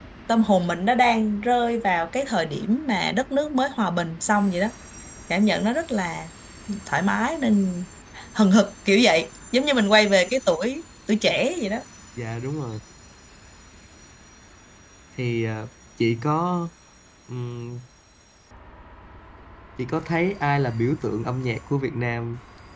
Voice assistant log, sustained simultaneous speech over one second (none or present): none